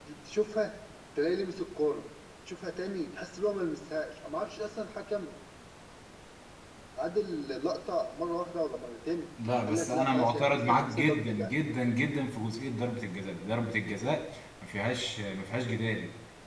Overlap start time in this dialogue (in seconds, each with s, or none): 9.7 s